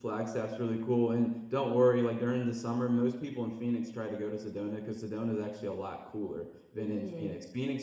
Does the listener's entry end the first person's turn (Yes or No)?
No